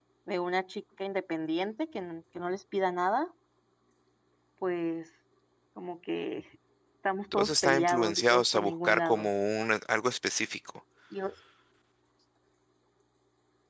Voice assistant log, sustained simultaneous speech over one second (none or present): present